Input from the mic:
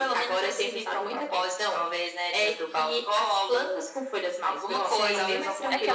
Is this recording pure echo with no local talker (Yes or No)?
No